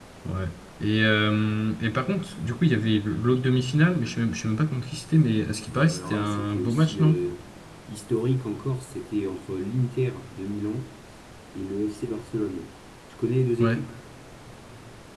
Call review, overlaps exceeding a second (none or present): present